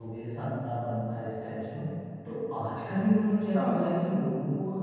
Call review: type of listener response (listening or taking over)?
listening